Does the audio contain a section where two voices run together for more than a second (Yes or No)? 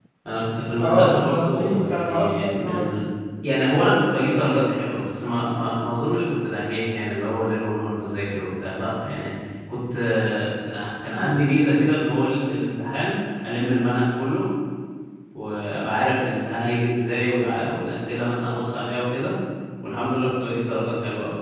Yes